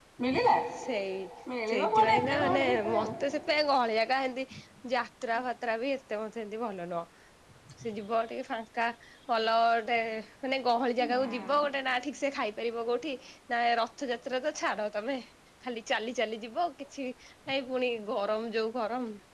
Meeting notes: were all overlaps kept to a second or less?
No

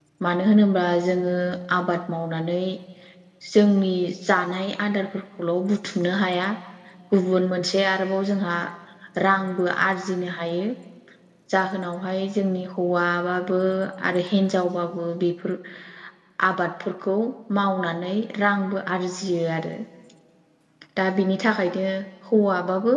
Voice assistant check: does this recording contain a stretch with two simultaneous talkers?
No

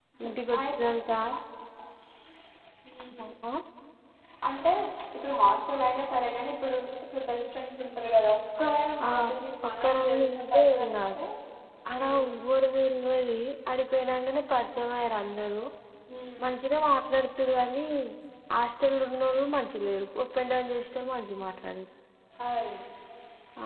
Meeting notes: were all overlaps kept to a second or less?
No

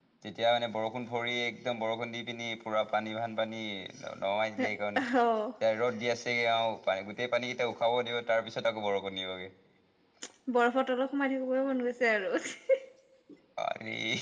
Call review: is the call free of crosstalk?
Yes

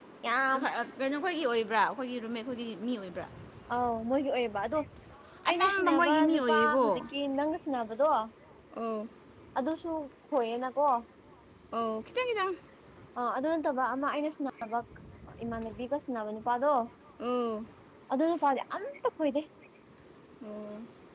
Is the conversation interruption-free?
No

